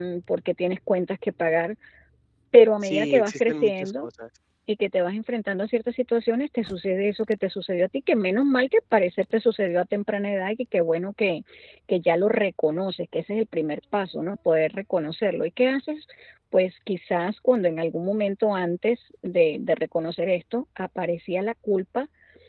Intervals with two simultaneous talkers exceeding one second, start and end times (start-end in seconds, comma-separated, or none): 2.8-4.1